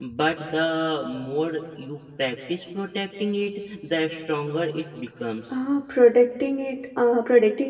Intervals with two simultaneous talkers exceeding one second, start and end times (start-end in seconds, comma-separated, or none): none